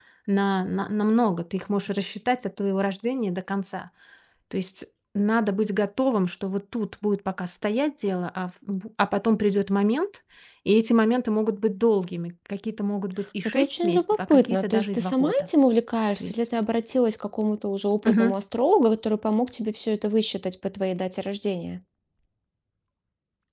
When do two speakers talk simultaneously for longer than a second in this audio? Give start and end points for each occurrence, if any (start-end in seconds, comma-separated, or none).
13.4-15.5